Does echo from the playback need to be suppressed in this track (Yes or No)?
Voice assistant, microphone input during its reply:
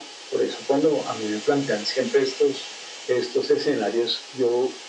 Yes